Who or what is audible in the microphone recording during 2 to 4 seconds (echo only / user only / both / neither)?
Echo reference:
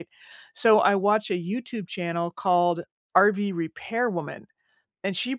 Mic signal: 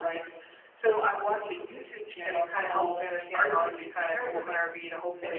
both